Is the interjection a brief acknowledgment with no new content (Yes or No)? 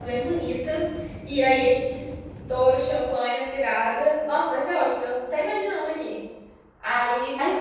Yes